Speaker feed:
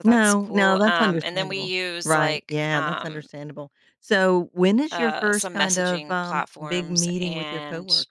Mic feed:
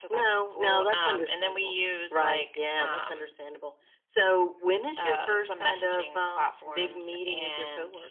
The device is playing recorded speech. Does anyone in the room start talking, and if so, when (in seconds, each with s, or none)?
none